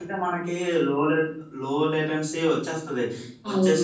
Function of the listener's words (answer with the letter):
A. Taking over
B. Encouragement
B